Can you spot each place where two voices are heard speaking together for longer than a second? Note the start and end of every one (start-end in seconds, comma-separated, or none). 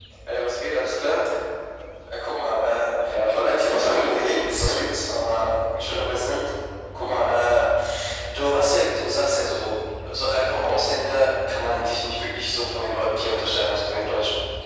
3.1-5.1